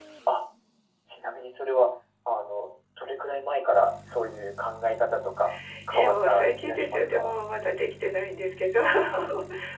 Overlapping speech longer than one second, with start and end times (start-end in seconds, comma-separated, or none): 5.9-7.3